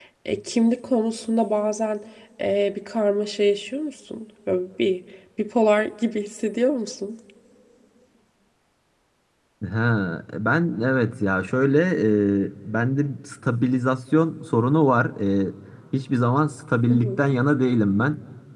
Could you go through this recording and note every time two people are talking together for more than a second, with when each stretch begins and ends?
none

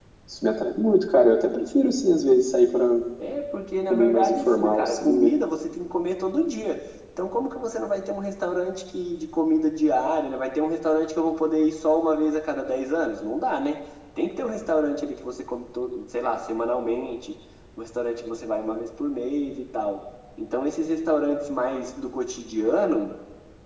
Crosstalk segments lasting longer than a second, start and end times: 3.9-5.3

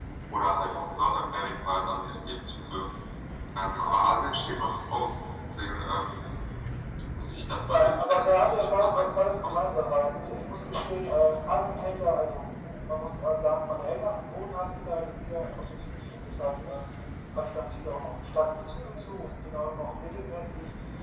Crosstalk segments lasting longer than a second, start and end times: 7.7-9.6

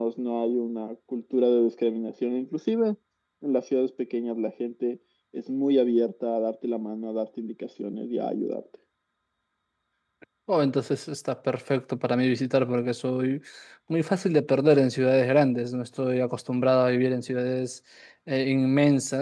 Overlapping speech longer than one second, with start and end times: none

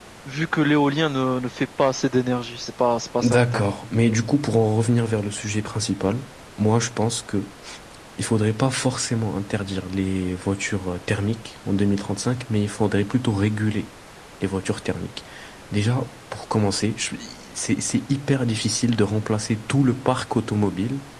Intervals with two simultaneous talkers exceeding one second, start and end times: none

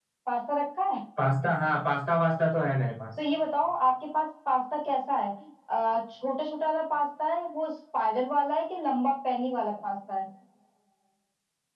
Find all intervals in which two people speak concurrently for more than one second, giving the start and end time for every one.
none

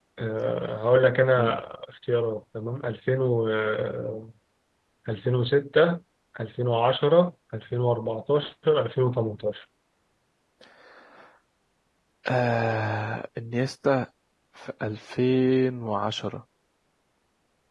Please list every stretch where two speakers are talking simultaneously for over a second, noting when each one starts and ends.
none

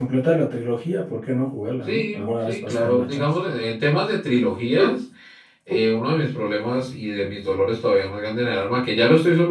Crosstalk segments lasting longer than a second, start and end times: 1.9-3.2

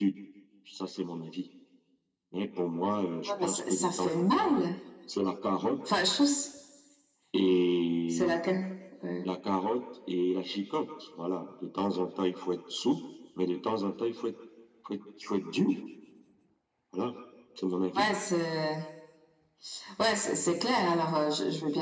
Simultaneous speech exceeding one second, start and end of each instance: 3.3-4.6

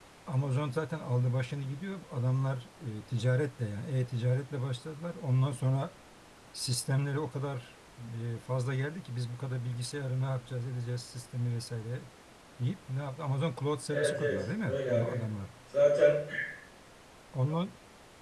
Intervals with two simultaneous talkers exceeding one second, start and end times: 13.9-15.2

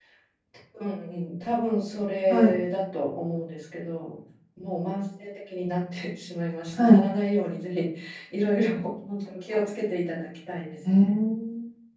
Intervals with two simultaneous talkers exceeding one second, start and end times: none

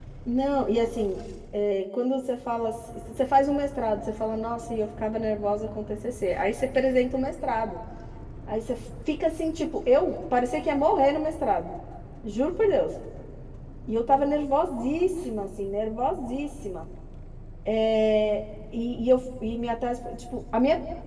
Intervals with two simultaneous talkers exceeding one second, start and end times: none

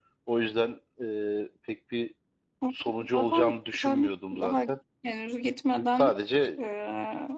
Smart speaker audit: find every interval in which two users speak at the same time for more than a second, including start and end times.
3.1-4.6

